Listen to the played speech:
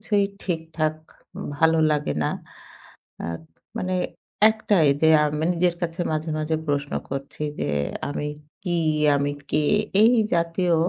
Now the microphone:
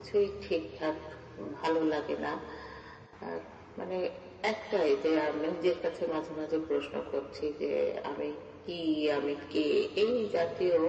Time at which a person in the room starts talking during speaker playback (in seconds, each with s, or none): none